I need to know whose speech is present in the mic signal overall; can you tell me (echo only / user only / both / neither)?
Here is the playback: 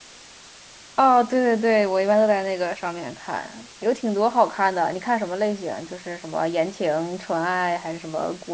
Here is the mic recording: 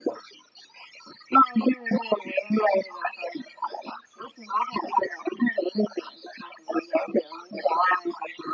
echo only